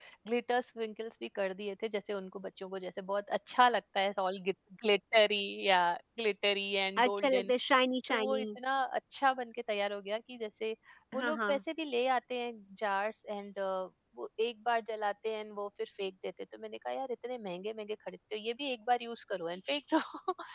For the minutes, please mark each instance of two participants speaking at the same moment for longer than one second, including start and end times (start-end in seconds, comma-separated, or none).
none